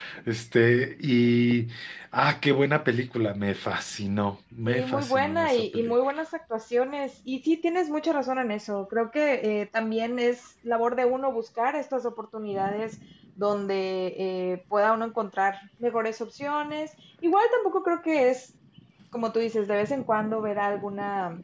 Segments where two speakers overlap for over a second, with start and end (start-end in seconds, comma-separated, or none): 4.7-5.9